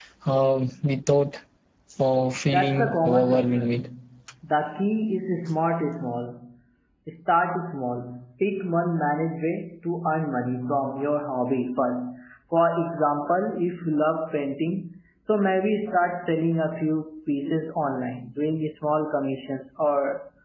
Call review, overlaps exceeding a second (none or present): present